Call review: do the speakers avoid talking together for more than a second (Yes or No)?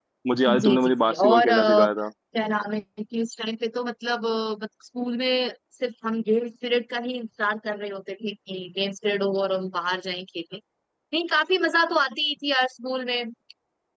No